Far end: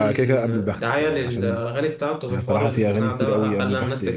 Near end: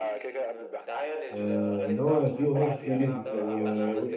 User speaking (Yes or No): Yes